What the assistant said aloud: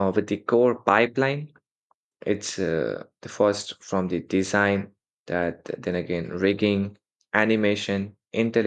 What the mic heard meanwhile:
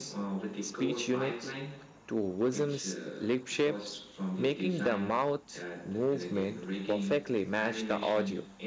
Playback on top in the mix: No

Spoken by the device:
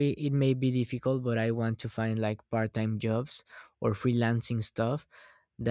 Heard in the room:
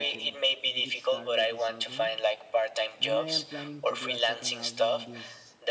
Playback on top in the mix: Yes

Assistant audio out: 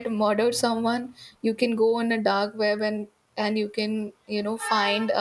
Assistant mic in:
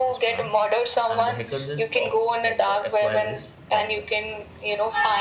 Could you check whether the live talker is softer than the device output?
Yes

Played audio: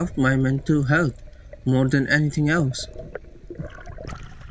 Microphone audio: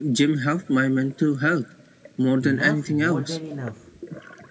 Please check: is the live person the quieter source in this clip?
Yes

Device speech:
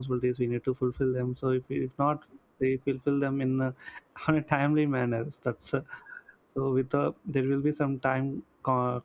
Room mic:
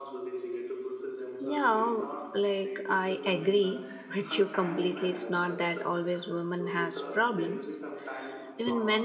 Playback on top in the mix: No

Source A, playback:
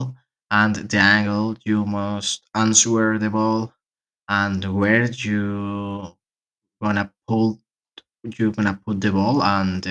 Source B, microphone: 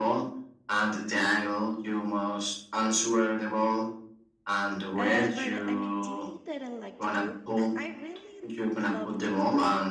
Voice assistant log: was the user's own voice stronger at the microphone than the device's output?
No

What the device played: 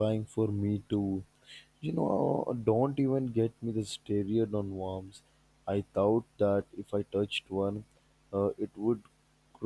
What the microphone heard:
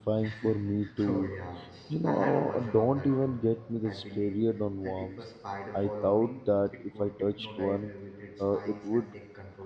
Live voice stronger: No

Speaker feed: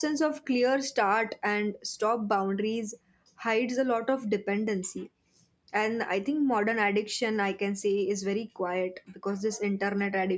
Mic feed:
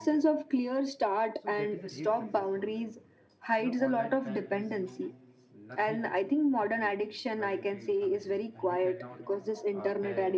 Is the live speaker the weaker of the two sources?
Yes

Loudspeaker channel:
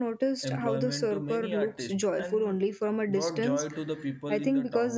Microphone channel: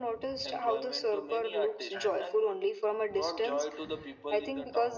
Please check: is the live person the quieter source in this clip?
Yes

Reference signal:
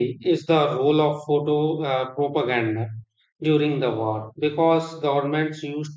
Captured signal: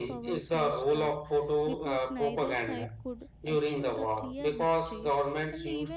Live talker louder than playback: No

